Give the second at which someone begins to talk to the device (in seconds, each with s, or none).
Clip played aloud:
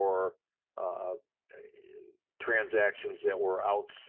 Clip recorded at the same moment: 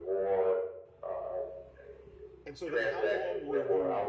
2.5 s